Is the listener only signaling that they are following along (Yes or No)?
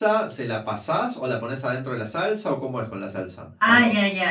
No